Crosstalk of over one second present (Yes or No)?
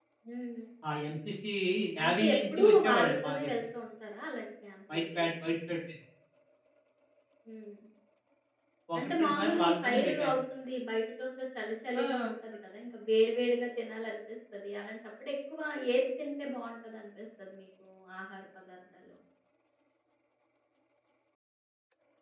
Yes